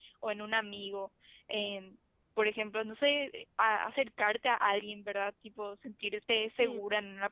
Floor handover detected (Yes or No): No